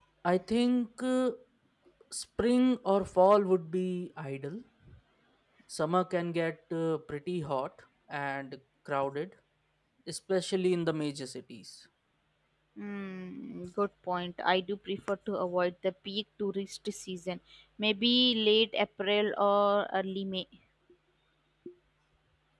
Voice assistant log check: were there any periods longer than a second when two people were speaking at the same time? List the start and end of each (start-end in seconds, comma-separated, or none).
none